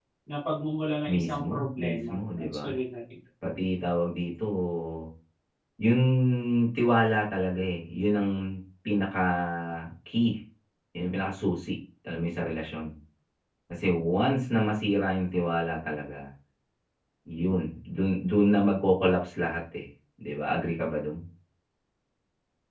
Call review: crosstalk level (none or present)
present